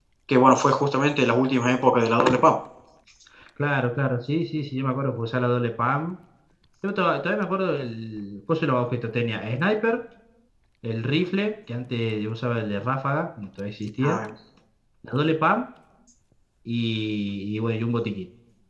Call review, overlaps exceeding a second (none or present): none